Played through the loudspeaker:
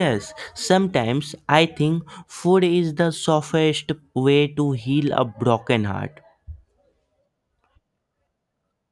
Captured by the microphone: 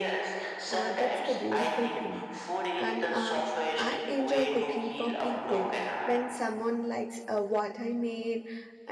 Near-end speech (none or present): present